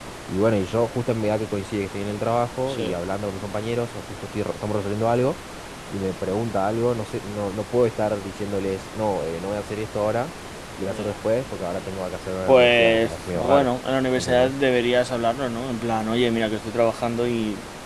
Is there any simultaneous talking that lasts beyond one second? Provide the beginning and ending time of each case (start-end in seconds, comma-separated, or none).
12.5-13.7